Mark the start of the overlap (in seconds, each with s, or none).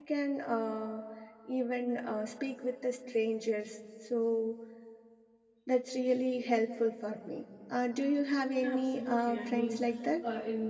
8.6 s